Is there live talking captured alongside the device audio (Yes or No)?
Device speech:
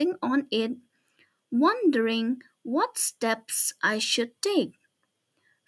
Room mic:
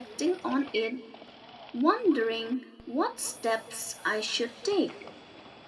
No